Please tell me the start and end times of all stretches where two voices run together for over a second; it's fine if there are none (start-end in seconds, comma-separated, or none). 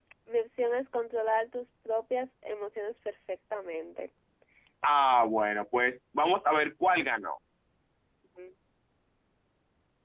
none